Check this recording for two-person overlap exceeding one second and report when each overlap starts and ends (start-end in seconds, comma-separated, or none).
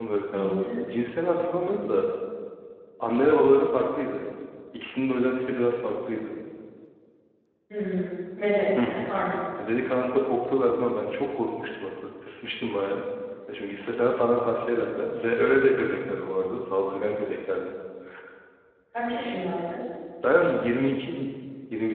none